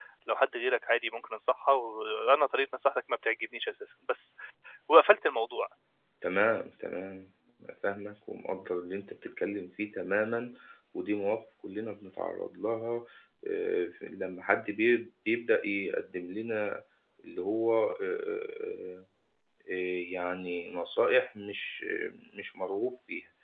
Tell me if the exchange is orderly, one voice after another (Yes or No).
Yes